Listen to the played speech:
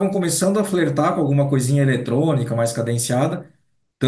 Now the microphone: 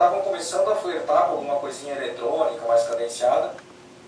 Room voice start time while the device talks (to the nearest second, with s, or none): none